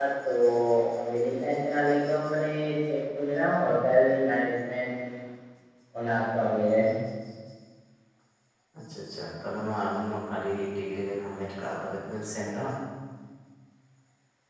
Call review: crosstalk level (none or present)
none